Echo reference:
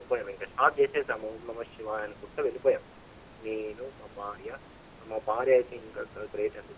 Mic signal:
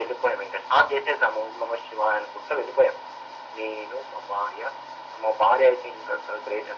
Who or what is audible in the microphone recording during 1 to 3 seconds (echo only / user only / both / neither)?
echo only